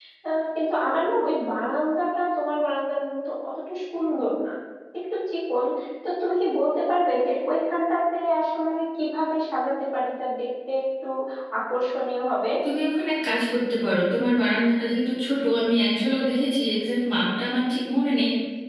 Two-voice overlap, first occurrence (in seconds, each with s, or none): none